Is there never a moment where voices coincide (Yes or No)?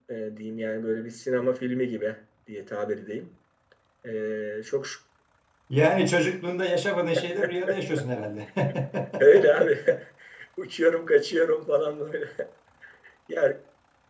Yes